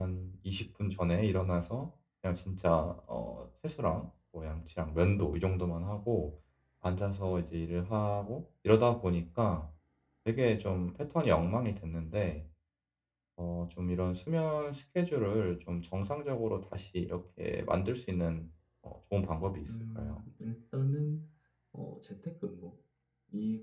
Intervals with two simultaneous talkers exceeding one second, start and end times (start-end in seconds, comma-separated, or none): none